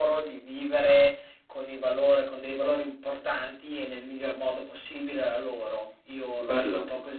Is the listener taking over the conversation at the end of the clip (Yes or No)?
Yes